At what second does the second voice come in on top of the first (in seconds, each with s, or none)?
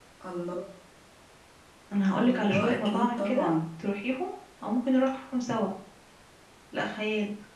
2.2 s